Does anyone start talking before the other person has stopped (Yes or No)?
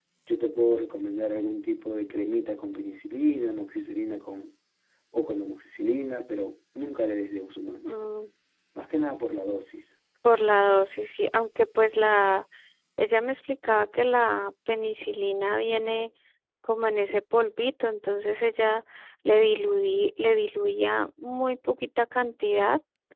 No